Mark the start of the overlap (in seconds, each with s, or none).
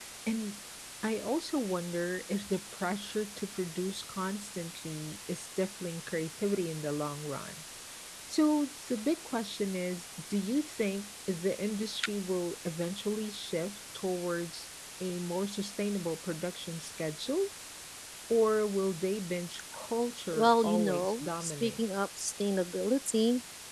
20.3 s